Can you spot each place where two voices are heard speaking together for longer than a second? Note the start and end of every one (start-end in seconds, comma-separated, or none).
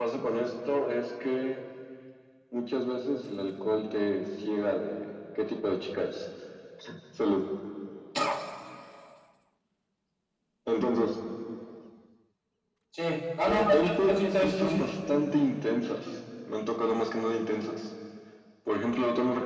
13.5-14.9